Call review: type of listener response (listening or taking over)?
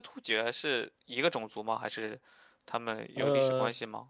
taking over